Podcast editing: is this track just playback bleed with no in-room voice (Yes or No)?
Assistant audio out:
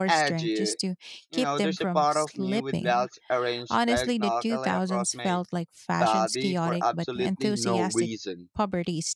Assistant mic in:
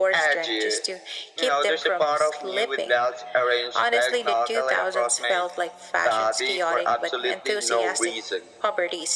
Yes